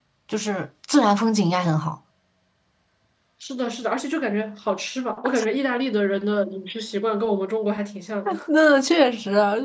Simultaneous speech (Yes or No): No